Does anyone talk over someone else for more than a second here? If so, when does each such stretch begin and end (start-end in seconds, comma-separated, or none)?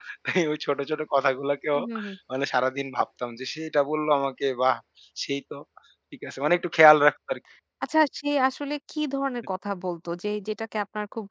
none